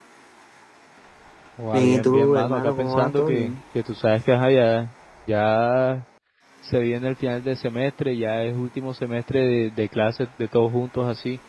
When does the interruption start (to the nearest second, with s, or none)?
2 s